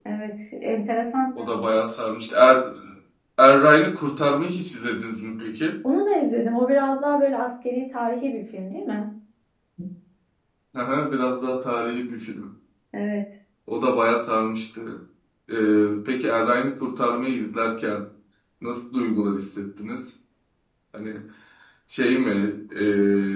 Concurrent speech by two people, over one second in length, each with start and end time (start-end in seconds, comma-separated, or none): none